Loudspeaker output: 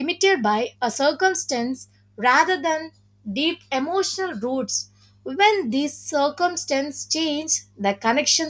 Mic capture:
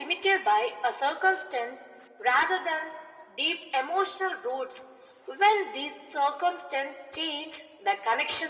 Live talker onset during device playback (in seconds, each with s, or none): none